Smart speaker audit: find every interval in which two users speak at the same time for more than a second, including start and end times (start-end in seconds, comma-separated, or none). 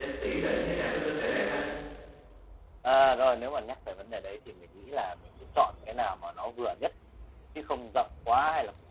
none